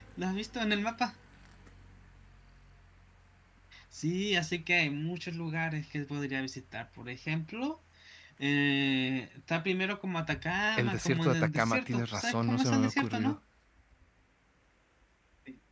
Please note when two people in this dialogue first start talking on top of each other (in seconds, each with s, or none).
10.8 s